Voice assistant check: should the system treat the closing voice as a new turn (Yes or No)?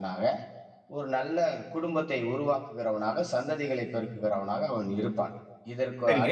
Yes